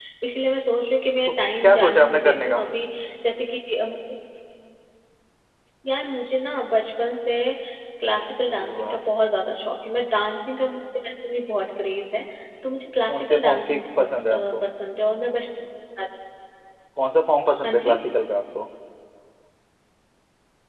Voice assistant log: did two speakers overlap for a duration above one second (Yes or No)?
Yes